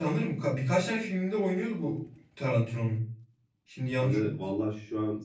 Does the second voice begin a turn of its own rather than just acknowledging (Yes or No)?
Yes